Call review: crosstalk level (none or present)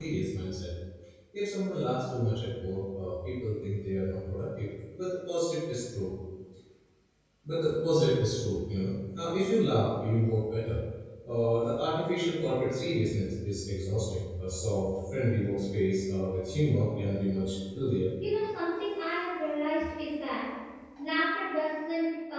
none